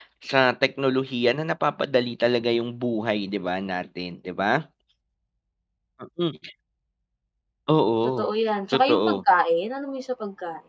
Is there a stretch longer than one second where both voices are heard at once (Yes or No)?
No